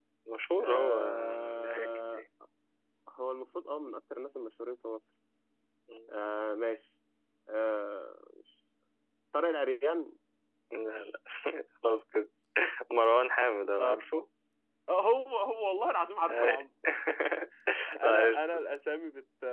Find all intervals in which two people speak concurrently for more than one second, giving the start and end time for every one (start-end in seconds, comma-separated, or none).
0.6-2.2